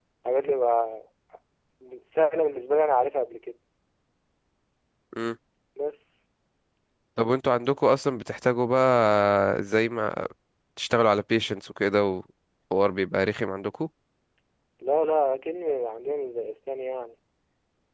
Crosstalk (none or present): none